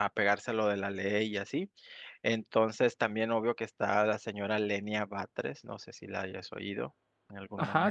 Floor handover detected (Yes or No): Yes